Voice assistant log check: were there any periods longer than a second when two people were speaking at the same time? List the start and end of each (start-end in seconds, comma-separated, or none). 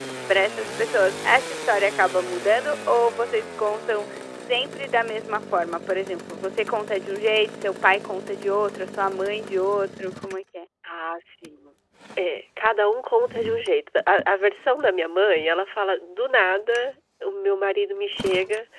none